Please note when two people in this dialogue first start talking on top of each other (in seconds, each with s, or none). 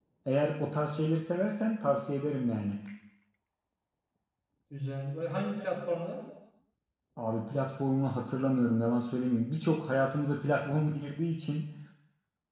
none